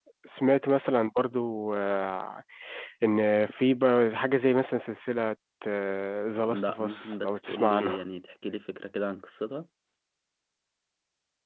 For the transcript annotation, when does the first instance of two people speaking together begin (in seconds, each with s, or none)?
6.5 s